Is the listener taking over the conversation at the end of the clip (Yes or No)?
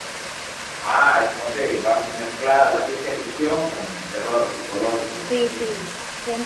Yes